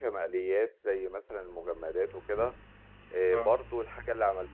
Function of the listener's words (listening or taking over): listening